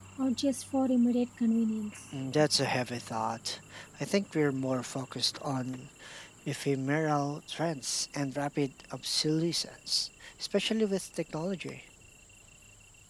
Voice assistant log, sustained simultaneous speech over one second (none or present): none